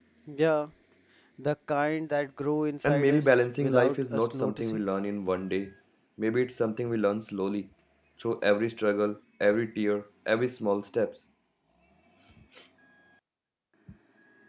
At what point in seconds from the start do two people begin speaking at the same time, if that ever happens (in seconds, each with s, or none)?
2.8 s